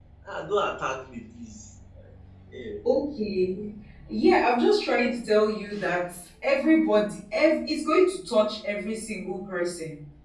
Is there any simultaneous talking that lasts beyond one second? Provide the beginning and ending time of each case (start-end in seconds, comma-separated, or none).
none